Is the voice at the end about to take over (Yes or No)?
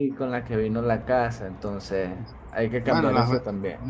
Yes